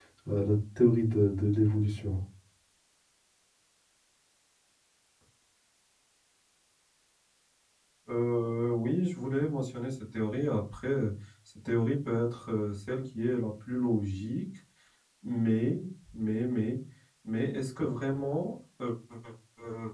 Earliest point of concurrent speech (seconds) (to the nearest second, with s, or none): none